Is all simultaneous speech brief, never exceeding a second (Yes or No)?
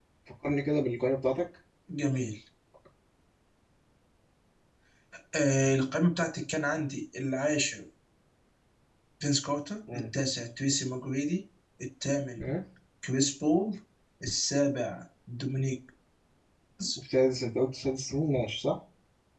Yes